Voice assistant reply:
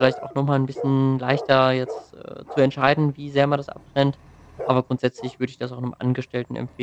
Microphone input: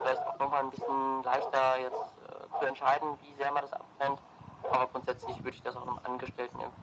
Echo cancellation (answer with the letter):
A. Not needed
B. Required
B